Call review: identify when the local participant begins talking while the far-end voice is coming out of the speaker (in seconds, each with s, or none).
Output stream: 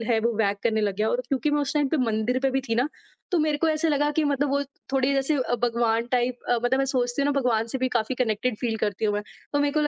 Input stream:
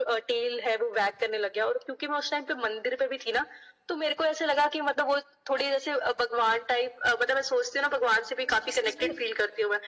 8.5 s